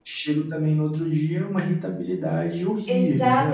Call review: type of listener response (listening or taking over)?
taking over